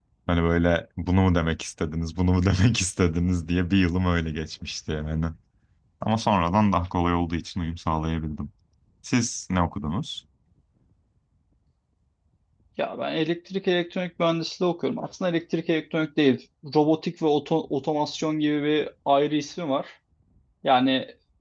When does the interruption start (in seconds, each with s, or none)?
none